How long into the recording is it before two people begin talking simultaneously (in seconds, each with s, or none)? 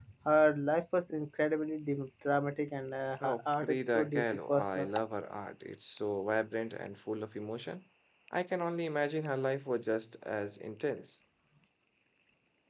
3.2 s